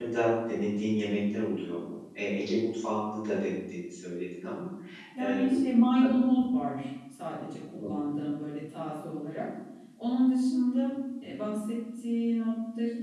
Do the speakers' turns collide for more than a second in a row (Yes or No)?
No